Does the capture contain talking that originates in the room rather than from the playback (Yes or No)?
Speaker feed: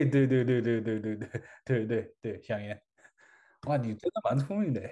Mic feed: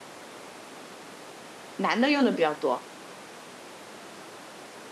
Yes